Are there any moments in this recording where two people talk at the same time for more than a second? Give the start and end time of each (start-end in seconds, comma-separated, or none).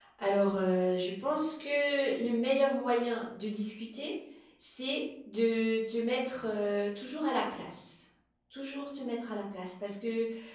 none